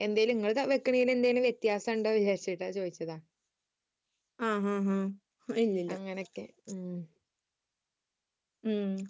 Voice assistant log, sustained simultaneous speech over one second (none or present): none